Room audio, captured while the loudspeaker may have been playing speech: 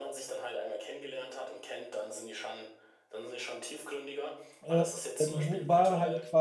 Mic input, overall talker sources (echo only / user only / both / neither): both